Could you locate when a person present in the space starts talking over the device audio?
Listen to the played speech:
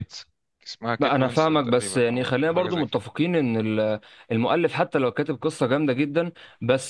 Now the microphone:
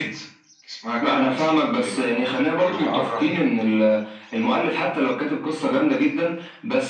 2.8 s

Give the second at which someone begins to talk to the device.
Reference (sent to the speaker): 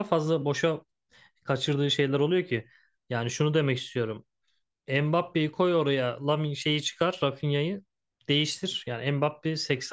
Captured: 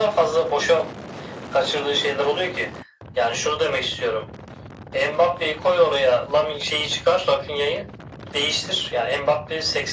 none

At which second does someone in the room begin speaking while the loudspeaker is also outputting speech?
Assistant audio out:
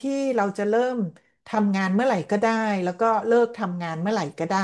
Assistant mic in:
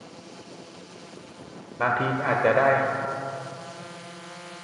1.8 s

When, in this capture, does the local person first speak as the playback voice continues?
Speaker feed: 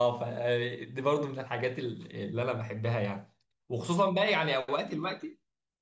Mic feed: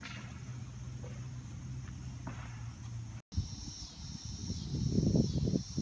none

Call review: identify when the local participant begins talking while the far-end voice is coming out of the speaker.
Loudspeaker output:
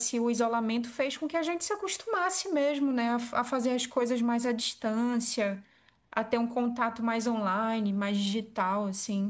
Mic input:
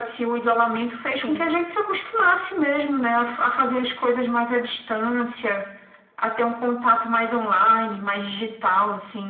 1.0 s

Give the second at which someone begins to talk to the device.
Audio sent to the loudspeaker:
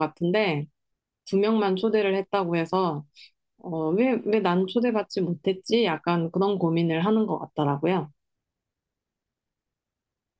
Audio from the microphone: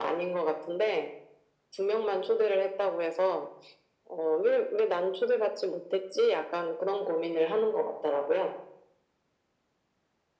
none

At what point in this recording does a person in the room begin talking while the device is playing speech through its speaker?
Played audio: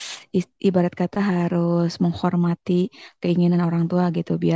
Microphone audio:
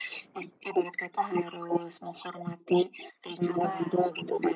3.4 s

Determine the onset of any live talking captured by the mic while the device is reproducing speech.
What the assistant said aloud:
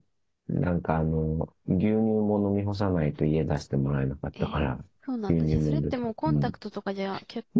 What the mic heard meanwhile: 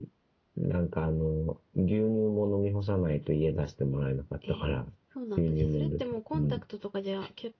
none

